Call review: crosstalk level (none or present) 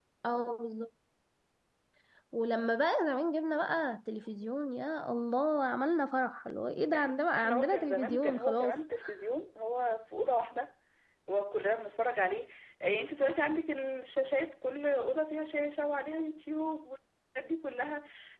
present